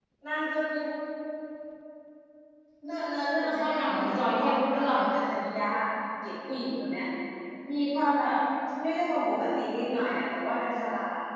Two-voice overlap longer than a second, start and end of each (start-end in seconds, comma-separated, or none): 3.4-5.0